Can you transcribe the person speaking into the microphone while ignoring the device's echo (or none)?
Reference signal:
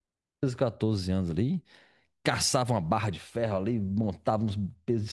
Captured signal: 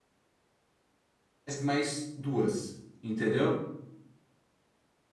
faz mais duas, entendeu?